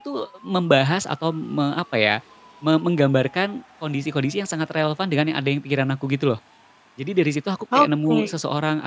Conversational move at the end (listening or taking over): listening